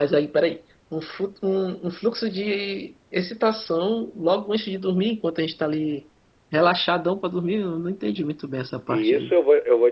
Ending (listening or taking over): taking over